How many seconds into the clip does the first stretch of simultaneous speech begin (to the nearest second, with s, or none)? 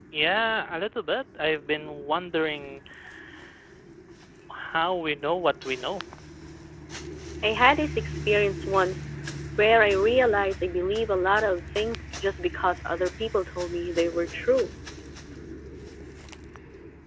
none